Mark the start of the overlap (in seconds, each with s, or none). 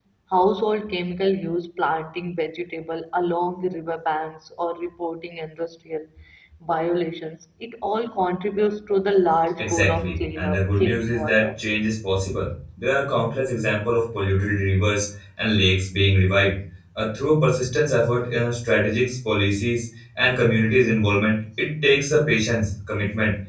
9.6 s